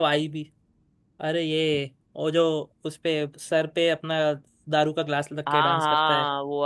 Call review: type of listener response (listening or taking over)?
taking over